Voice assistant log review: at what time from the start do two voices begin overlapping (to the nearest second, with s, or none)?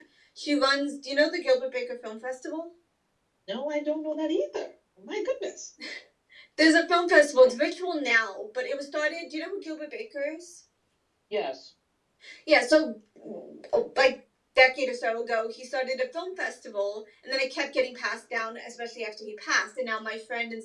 none